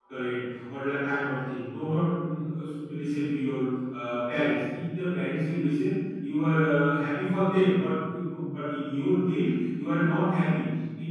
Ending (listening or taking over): listening